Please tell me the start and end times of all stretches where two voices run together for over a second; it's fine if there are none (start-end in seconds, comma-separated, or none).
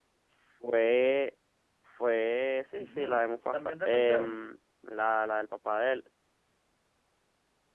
2.8-4.5